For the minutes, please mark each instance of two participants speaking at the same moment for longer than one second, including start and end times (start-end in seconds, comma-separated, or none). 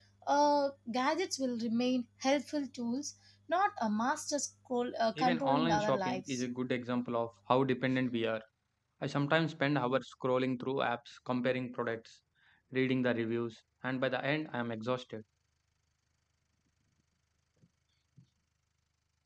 5.2-6.4